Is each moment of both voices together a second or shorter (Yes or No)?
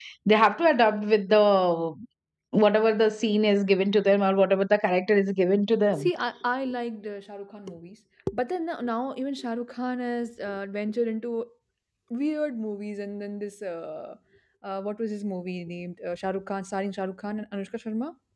Yes